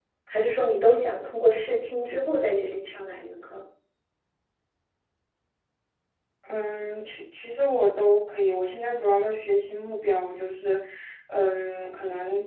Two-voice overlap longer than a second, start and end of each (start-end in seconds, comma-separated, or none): none